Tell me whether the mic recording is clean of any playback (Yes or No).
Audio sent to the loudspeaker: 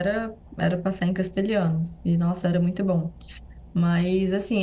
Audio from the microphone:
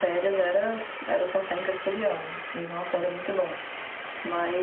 No